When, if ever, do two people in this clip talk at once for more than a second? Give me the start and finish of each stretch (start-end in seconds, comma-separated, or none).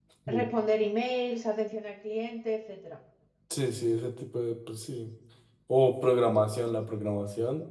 none